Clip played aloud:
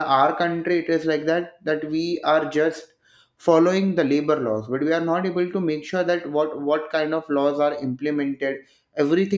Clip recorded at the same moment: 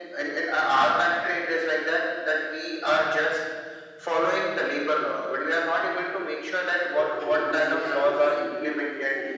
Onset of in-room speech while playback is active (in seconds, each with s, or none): 7.0 s